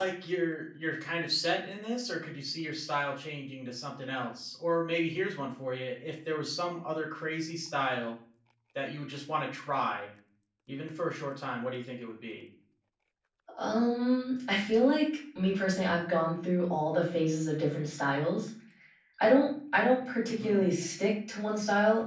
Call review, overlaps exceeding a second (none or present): none